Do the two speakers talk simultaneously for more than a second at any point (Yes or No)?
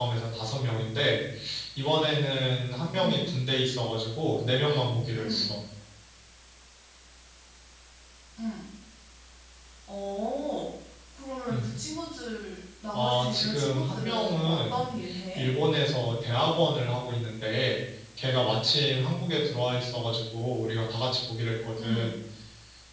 Yes